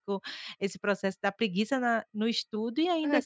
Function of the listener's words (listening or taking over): taking over